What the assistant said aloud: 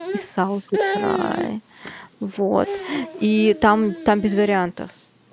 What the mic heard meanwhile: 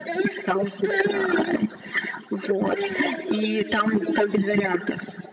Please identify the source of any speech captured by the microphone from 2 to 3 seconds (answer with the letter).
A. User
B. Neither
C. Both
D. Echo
D